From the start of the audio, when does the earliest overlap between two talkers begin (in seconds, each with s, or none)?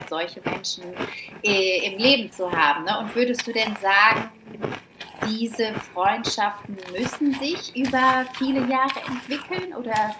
none